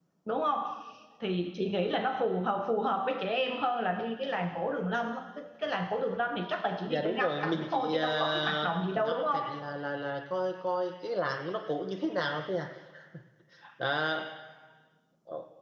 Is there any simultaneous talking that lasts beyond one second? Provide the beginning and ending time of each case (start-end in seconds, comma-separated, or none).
6.9-9.4